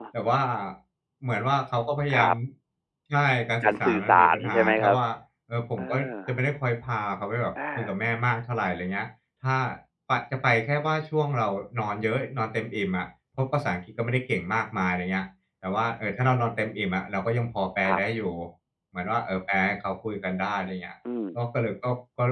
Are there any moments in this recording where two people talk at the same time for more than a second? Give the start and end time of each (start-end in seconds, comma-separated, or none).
3.6-5.0